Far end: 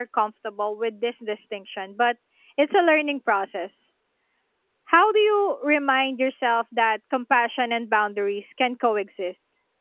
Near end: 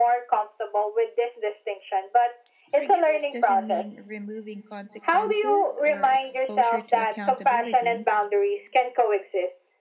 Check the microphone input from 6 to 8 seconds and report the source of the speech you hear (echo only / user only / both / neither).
both